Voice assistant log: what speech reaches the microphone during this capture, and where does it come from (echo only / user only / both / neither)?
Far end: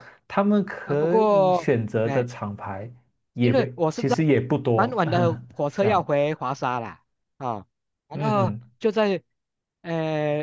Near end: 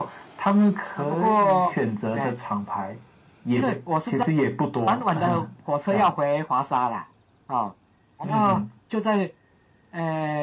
echo only